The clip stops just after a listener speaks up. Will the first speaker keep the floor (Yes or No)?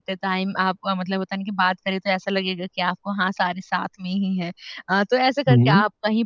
Yes